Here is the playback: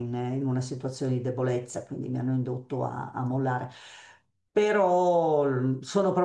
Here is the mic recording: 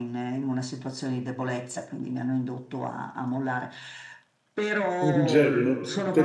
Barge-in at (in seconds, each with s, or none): 5.0 s